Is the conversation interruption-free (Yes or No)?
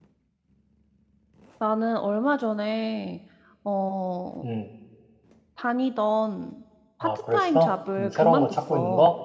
No